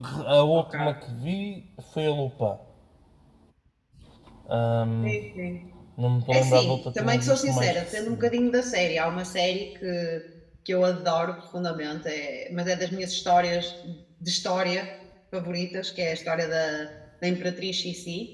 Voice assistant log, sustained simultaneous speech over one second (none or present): present